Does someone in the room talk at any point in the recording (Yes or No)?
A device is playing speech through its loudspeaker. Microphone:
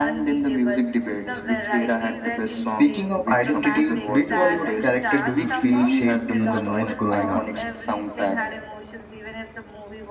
Yes